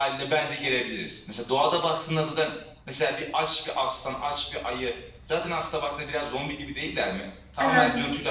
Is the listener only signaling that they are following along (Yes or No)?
Yes